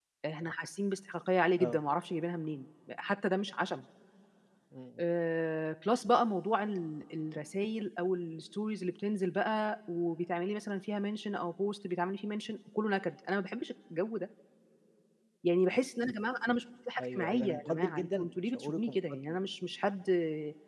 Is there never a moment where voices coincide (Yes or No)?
No